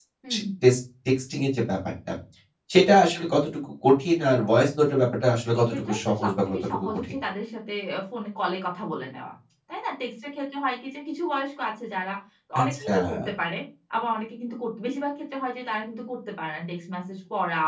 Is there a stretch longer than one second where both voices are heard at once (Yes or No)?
Yes